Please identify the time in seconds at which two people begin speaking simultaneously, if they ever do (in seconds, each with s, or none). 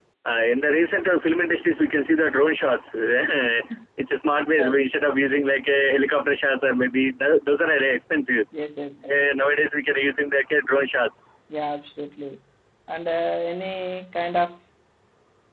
none